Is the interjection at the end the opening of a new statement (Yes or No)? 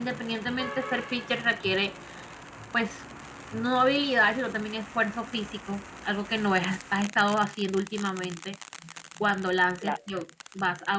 No